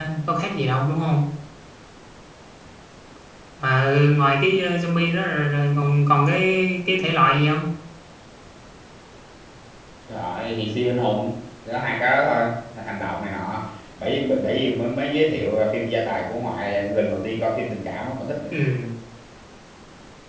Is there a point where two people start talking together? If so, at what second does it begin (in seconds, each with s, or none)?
none